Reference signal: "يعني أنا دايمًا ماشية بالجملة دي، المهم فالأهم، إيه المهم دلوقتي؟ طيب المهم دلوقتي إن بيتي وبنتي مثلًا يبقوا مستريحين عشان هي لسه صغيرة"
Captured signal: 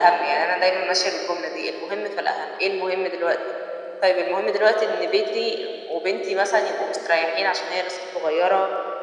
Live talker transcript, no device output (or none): none